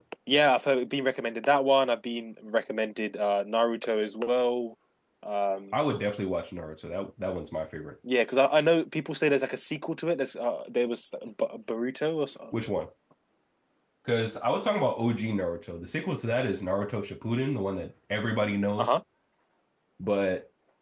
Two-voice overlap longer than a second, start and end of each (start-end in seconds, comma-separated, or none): none